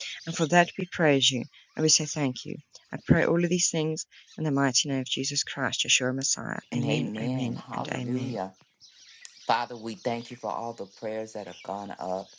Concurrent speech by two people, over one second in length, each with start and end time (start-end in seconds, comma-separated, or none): 6.7-8.3